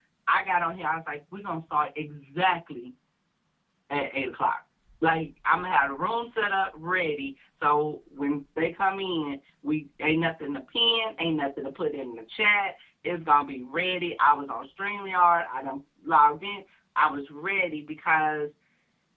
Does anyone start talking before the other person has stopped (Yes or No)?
No